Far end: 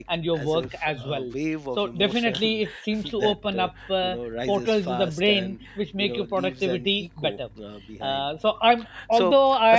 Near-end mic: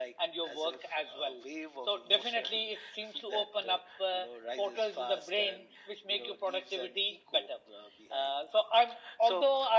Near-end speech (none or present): none